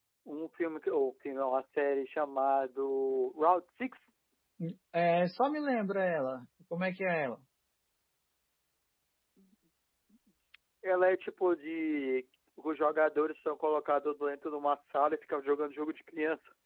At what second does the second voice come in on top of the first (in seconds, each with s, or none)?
none